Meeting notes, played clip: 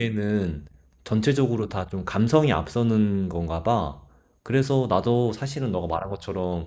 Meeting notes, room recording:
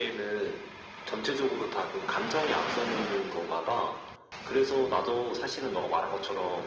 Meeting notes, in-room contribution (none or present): none